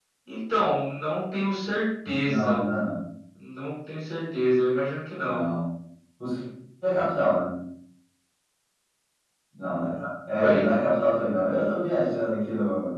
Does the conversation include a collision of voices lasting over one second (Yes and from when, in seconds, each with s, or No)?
No